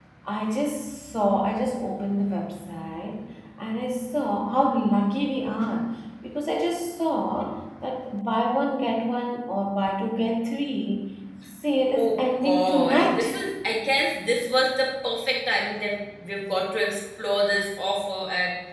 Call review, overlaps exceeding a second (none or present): present